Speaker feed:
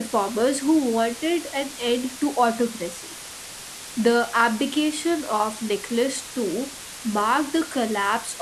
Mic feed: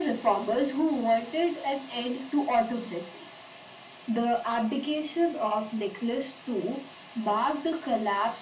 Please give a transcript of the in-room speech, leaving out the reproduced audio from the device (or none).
none